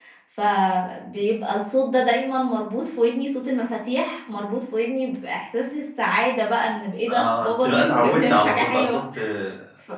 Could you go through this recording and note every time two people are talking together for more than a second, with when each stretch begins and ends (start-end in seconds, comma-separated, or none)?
7.1-9.0